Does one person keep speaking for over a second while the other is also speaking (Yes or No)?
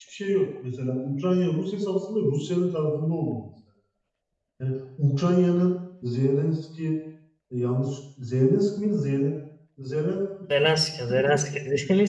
No